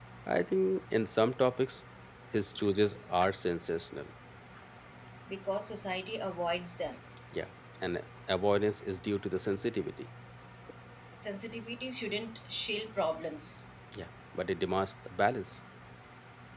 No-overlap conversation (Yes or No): Yes